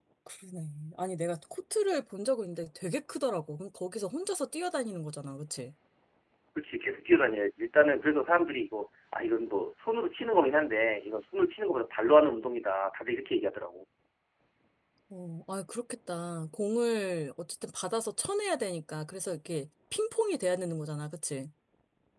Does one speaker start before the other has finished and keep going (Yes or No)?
No